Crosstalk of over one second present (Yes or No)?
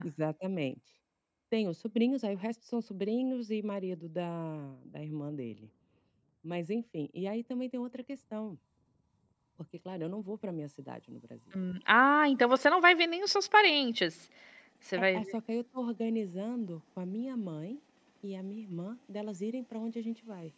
No